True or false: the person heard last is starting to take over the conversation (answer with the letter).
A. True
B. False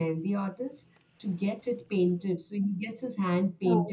B